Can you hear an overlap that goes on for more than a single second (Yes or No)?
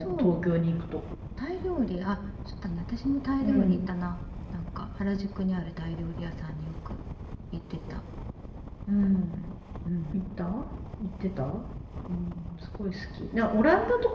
No